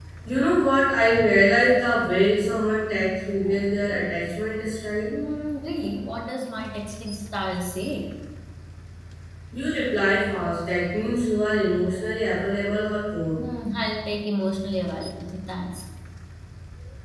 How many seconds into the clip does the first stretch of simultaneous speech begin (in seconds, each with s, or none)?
none